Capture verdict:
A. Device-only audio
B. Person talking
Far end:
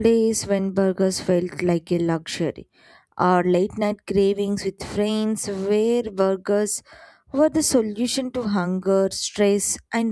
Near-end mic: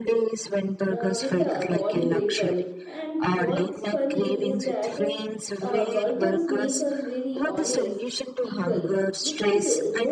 B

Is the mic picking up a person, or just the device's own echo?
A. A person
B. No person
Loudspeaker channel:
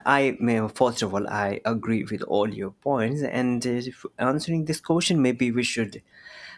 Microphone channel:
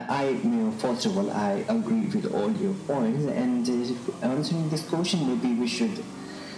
B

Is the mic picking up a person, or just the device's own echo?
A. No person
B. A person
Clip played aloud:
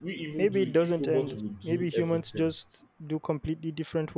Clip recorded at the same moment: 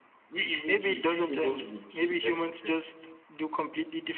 A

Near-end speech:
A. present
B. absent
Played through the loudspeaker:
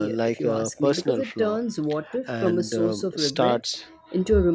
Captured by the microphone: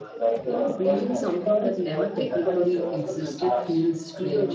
A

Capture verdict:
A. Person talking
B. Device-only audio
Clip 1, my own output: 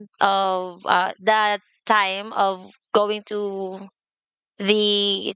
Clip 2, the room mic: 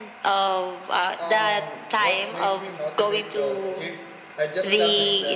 A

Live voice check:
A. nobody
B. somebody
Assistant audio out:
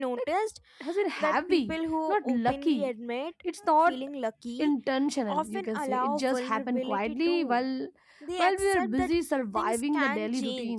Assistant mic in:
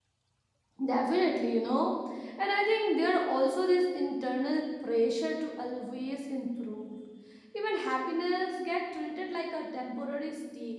B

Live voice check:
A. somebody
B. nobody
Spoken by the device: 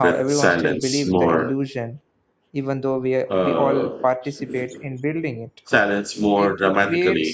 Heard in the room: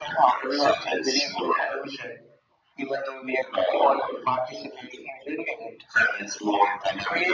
B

